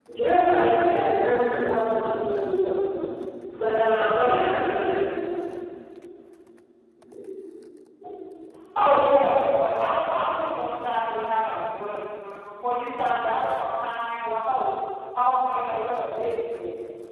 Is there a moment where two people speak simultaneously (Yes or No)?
No